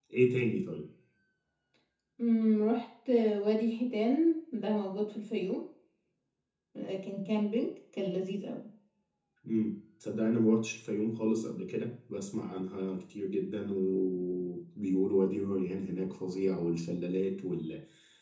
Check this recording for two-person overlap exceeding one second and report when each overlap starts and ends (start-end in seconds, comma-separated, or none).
none